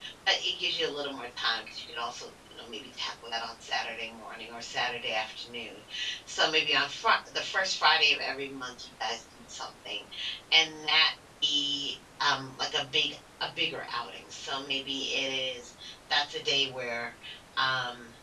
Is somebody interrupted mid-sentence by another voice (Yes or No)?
No